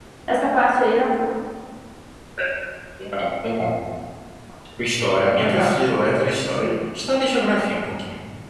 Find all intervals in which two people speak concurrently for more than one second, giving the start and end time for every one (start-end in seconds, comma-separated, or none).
none